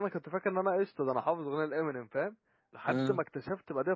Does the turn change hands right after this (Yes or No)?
No